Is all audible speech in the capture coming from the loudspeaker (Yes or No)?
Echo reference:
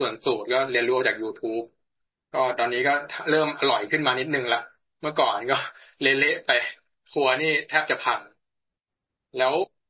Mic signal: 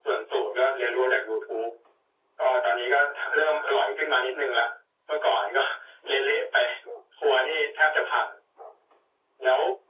Yes